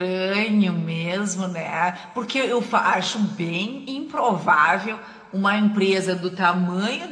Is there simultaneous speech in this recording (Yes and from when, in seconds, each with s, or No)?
No